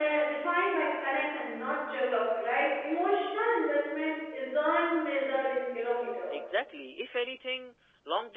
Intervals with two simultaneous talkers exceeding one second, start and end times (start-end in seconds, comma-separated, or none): none